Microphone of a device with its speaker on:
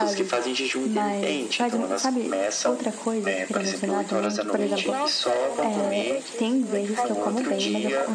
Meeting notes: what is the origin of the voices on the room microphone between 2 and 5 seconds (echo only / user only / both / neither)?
both